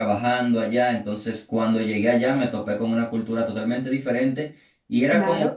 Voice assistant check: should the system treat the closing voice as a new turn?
No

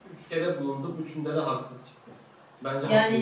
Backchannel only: No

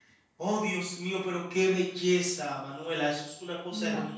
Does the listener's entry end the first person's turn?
No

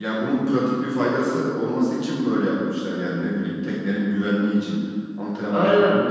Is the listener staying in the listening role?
No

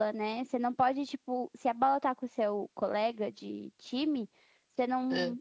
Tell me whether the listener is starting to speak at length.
No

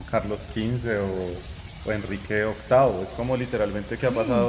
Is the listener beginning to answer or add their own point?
No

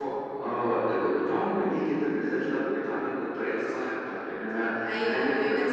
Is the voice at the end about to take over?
Yes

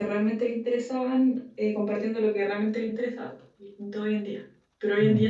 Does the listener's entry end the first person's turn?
No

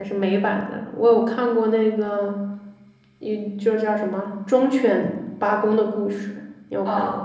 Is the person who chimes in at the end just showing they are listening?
No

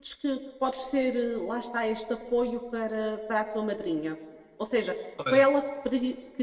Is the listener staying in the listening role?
Yes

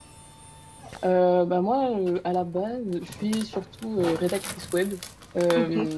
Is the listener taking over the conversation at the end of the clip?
No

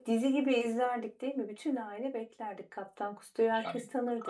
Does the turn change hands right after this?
Yes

